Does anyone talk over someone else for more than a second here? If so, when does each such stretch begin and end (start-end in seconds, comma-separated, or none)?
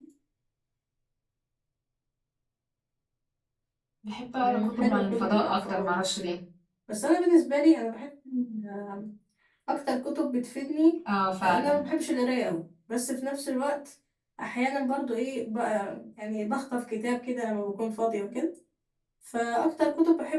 4.4-6.1